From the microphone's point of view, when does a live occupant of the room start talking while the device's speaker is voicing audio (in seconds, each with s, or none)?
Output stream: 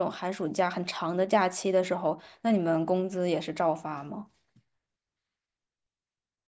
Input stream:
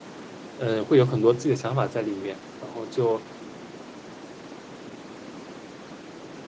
0.5 s